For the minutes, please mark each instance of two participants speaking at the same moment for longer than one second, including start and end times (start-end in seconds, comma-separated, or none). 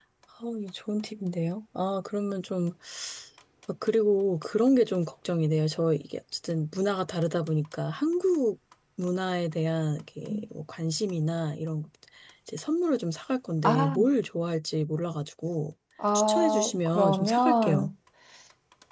16.1-17.9